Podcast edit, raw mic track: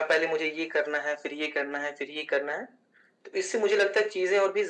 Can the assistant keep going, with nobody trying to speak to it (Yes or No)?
Yes